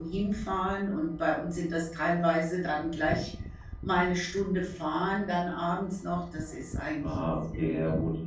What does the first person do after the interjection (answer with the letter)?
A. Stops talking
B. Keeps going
A